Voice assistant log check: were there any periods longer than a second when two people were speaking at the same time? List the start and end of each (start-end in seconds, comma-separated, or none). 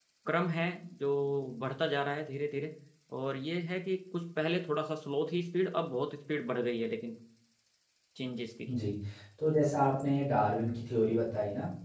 none